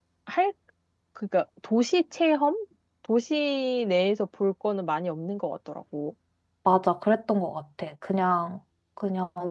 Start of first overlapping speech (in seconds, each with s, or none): none